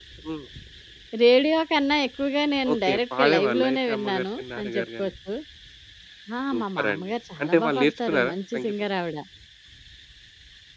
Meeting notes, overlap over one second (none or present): present